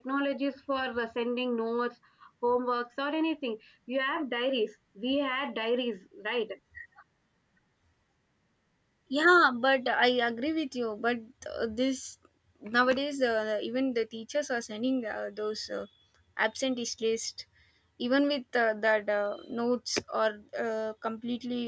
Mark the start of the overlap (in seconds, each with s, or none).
none